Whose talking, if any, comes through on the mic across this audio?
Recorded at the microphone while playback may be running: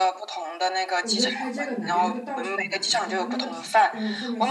both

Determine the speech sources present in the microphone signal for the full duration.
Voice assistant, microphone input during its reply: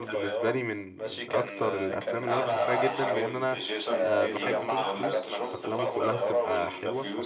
both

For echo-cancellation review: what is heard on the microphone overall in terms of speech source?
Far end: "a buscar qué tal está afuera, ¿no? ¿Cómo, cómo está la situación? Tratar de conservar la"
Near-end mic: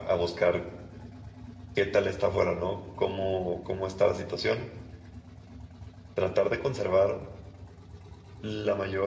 echo only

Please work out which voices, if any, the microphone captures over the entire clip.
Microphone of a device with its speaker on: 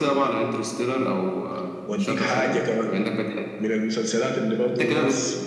echo only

